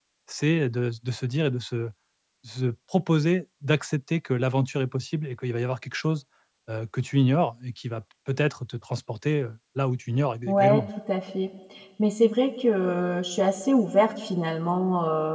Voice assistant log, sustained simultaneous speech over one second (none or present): none